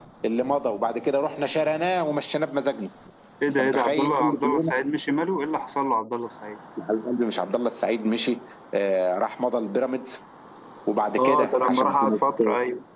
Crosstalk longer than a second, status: present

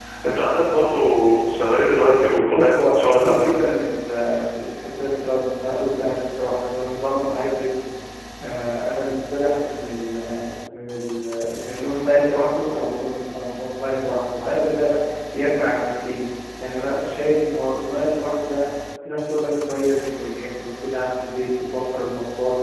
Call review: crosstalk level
present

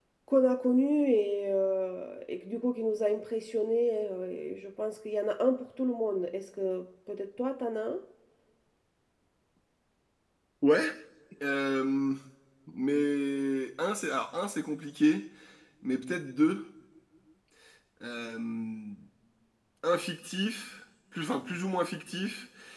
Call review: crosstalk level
none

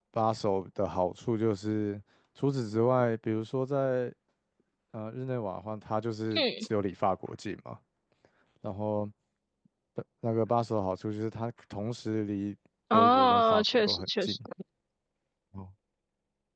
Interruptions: present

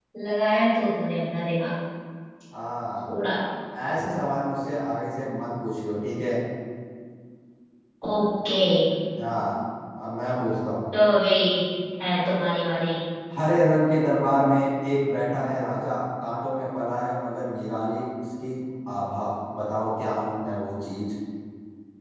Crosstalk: none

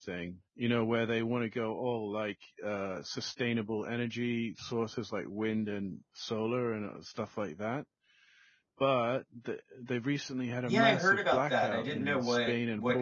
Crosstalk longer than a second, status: present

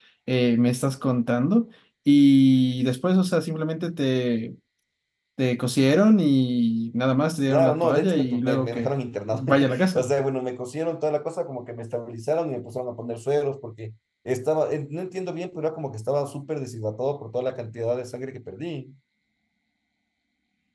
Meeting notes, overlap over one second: present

